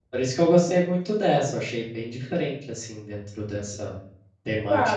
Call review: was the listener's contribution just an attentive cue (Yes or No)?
No